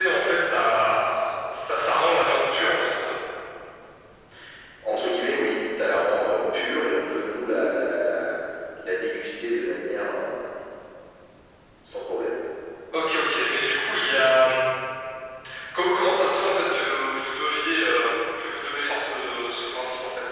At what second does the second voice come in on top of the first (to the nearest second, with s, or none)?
none